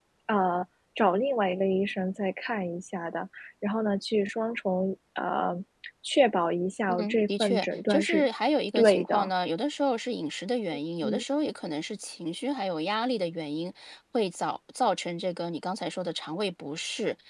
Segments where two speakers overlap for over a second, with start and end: 7.0-8.3

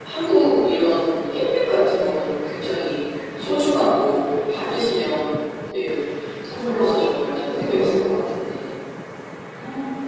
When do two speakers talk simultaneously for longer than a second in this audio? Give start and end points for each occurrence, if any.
6.4-8.1

